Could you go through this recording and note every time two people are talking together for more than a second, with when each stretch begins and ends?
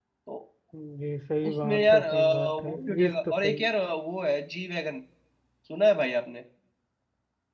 1.5-3.7

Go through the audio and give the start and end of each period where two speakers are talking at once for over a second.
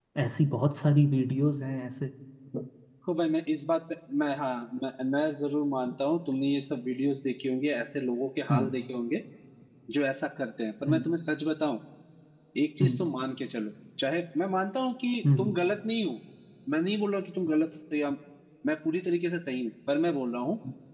none

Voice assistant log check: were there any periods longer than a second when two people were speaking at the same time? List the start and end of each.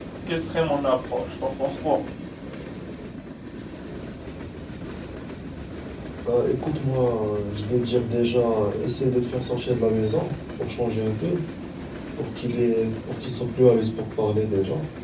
none

